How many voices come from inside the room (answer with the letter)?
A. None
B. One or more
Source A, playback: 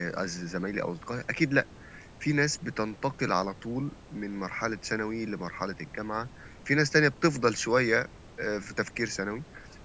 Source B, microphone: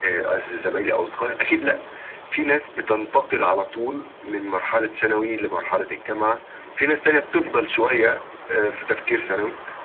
A